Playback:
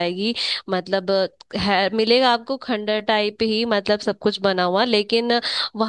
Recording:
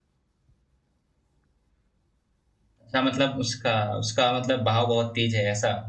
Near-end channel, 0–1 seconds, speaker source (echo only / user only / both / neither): neither